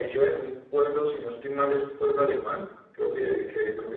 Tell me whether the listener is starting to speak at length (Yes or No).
No